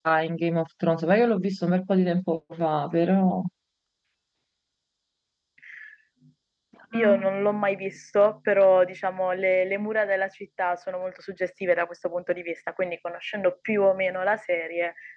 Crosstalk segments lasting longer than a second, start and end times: none

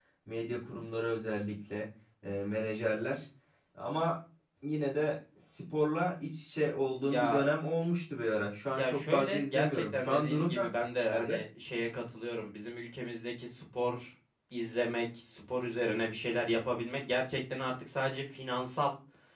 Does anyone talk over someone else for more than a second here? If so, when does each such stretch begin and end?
8.8-10.6

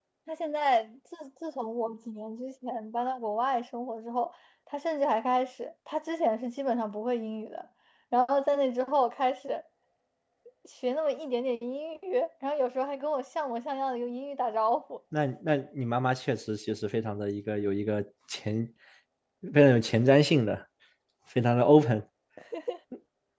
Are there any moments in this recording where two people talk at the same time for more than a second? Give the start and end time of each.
none

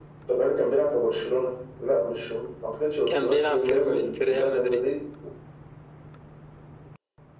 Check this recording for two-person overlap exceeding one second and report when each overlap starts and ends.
3.1-4.9

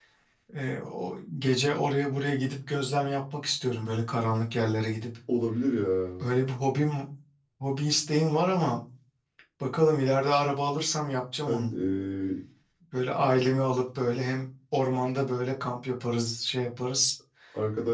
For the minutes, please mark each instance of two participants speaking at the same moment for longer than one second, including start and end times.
none

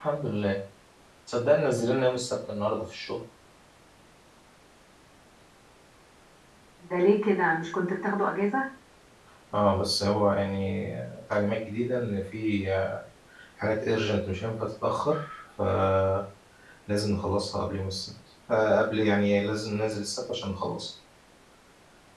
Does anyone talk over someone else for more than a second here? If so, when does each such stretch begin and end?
none

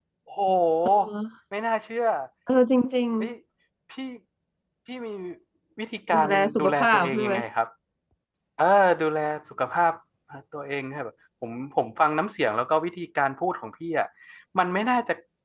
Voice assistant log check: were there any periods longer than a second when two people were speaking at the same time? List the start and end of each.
6.1-7.3

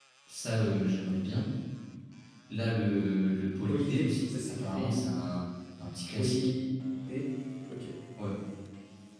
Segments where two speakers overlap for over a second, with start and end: 3.7-5.0

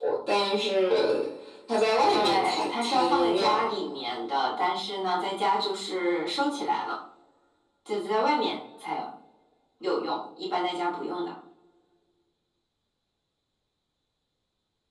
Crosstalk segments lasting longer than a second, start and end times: 2.1-3.6

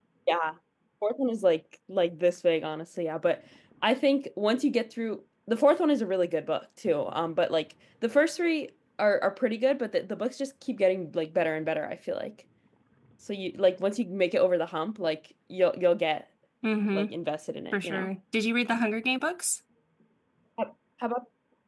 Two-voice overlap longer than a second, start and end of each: none

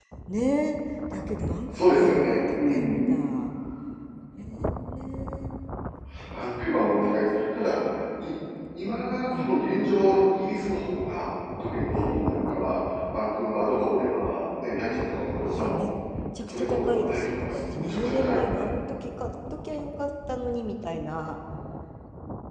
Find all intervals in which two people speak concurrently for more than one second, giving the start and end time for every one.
1.7-2.9, 16.5-18.4

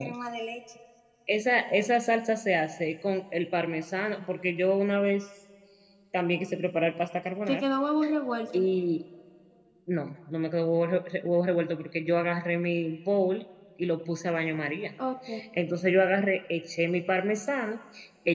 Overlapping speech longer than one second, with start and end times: none

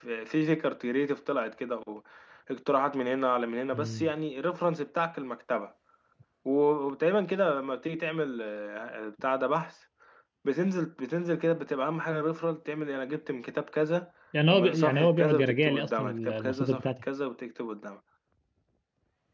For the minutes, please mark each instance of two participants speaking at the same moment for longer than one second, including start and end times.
14.5-17.0

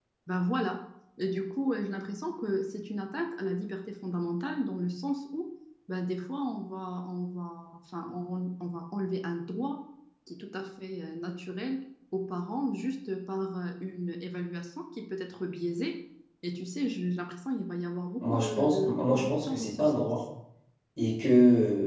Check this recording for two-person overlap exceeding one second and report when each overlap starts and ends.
18.2-20.1

